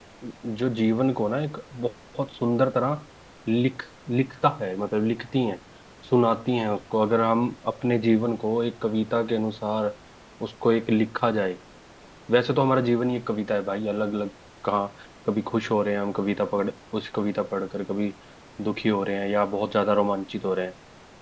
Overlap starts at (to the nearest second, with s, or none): none